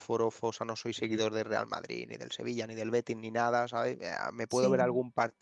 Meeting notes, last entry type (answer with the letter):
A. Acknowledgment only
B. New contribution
A